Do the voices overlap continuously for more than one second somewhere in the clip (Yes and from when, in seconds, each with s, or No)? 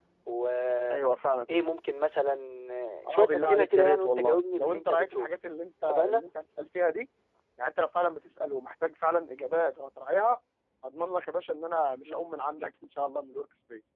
Yes, from 3.0 s